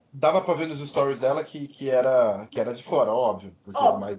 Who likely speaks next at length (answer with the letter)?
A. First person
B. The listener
B